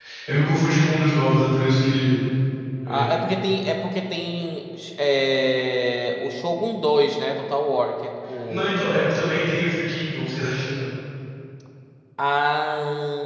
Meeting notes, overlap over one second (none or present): none